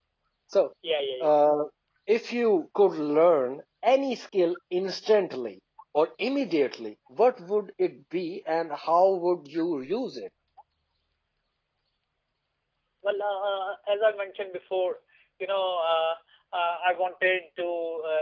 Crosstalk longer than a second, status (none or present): none